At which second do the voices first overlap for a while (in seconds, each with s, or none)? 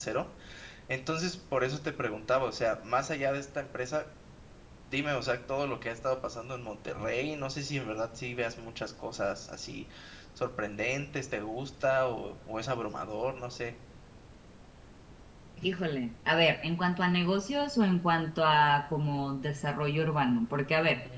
none